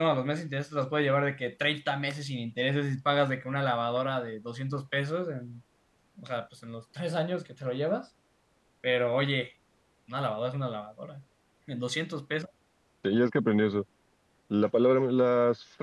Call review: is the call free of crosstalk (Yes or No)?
Yes